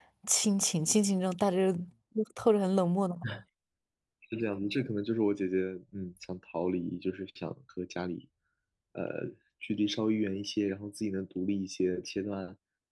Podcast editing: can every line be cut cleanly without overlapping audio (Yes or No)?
Yes